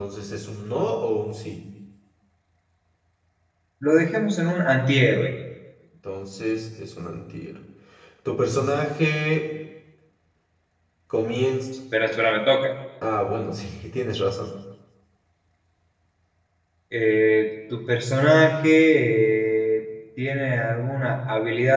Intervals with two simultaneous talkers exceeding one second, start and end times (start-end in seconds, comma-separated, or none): none